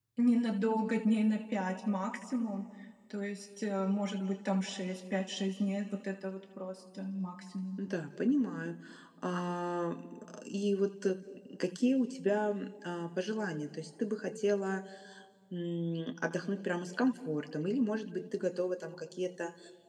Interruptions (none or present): none